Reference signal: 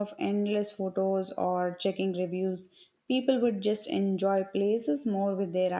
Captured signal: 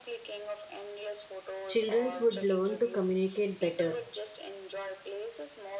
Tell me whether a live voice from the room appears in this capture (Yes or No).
Yes